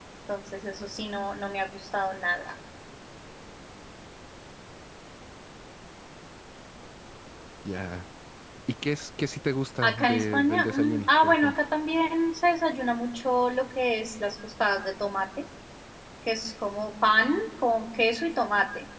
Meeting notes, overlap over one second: present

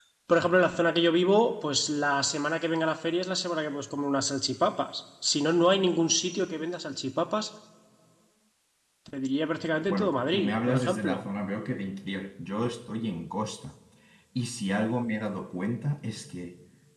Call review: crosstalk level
present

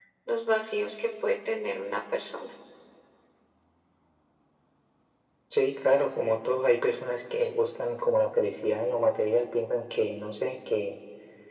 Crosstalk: none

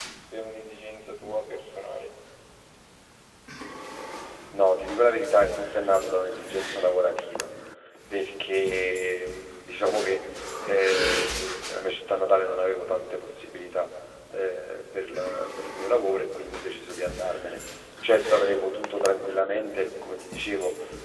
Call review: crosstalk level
none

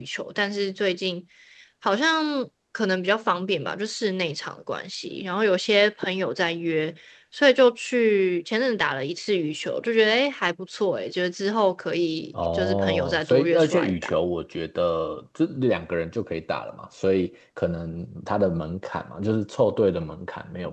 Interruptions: present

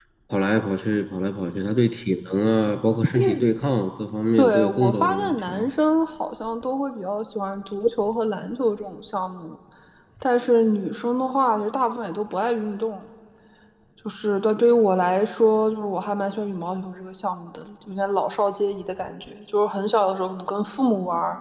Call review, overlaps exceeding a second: present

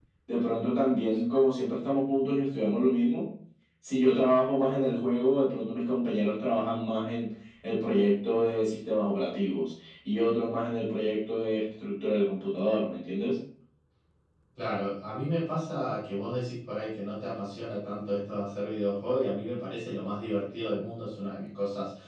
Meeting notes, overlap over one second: none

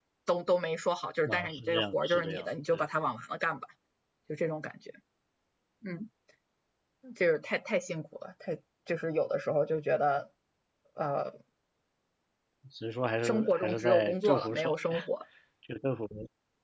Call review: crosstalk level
present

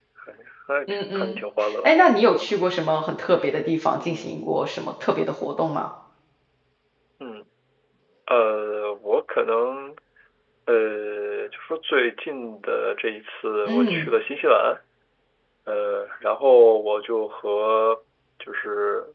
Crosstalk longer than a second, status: none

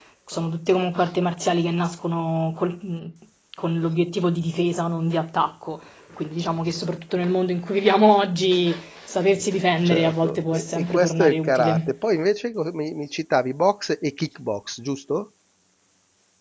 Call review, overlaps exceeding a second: present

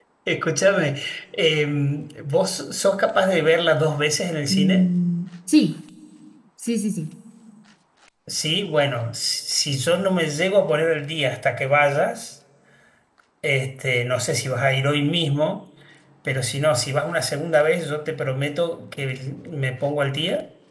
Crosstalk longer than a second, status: none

